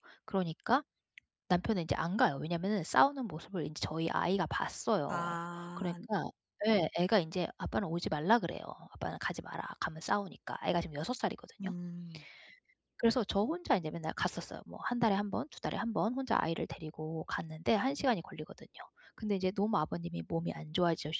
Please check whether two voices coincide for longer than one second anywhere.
No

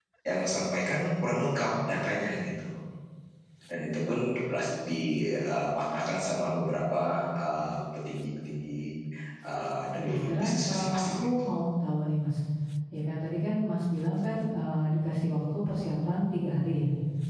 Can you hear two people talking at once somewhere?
Yes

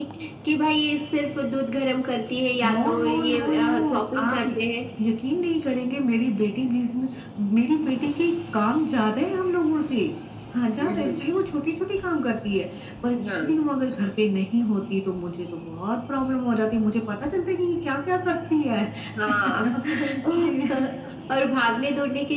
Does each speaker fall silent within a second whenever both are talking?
No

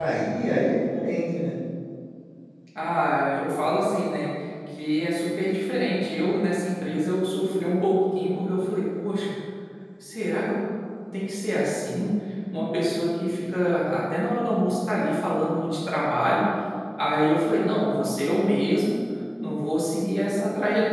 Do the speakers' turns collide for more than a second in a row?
No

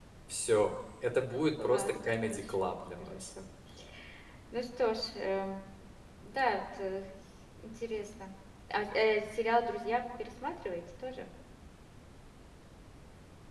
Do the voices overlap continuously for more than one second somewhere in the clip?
Yes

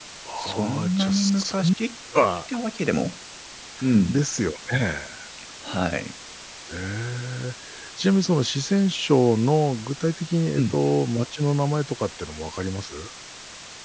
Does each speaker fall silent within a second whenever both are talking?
No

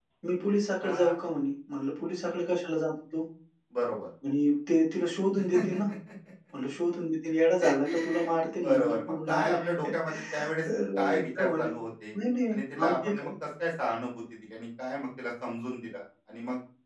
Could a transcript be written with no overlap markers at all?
No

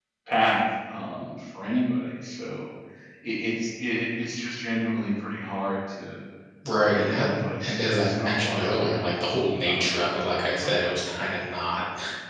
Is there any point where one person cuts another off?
Yes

